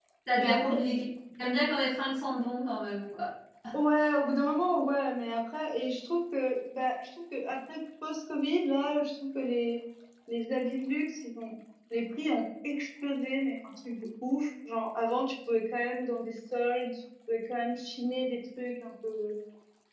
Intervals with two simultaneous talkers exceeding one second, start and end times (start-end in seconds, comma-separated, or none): none